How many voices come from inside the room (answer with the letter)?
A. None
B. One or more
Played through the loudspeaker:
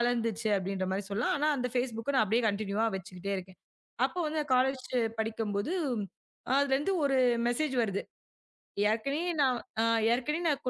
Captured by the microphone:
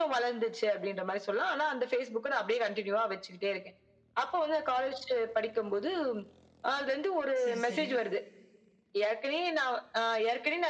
B